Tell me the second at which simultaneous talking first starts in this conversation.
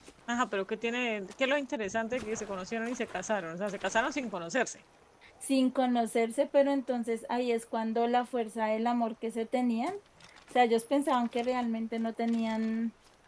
none

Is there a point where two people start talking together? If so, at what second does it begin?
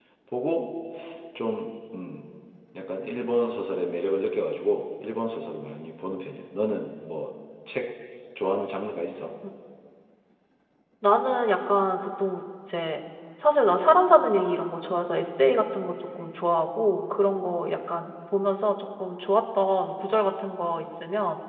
none

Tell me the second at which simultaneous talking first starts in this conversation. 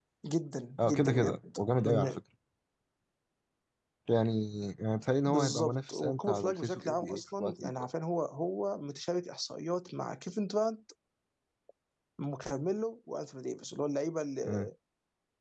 1 s

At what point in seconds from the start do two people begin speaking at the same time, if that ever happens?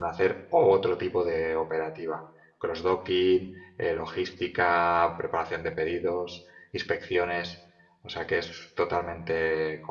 none

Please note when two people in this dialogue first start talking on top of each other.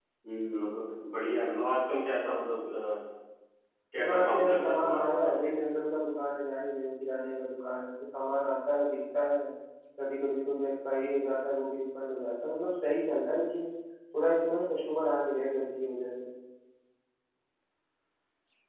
4 s

